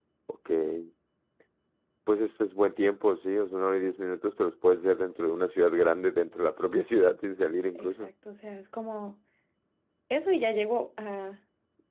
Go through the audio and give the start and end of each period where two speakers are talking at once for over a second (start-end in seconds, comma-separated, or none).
none